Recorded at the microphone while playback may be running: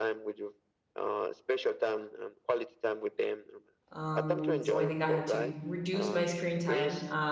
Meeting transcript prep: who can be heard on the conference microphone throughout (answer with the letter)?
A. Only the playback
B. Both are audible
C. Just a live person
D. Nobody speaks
B